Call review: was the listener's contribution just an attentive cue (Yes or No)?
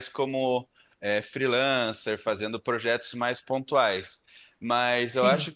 Yes